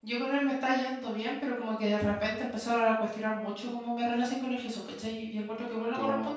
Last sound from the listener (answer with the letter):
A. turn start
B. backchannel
B